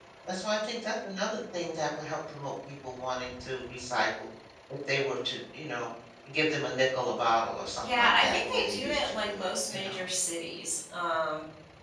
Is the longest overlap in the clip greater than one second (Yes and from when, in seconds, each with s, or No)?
Yes, from 7.8 s